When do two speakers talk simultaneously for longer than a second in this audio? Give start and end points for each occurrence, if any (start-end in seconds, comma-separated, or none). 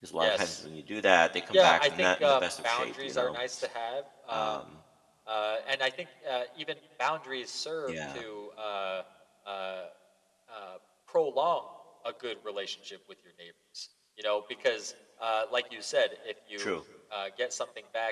1.5-3.4